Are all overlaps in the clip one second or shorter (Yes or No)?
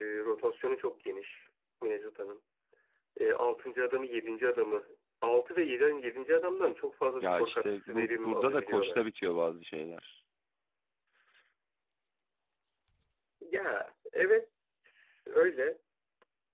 No